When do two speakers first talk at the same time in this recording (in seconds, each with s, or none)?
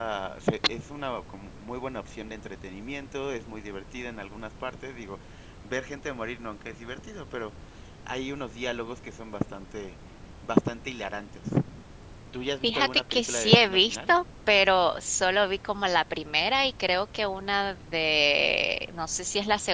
12.6 s